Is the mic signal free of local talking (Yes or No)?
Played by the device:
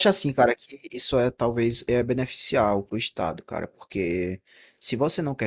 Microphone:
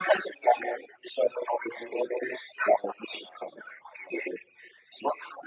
Yes